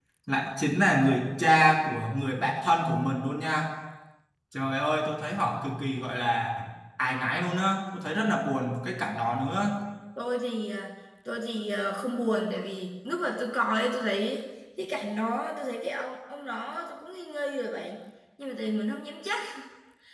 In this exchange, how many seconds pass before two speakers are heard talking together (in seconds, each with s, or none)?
none